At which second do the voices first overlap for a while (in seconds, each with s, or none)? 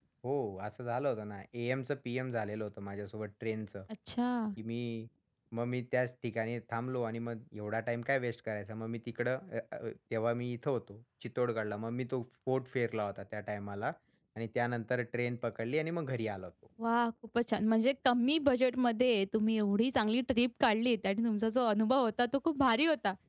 none